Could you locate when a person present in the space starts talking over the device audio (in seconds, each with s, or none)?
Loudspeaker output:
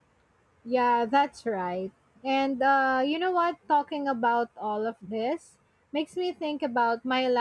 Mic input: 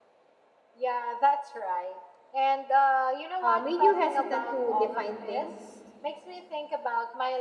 3.4 s